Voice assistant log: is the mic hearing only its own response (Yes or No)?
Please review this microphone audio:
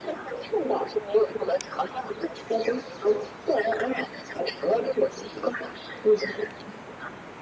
Yes